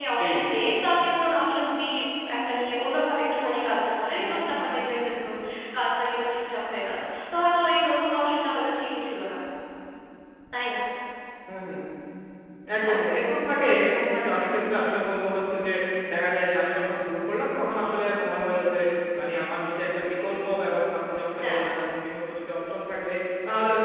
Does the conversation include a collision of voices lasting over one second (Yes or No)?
No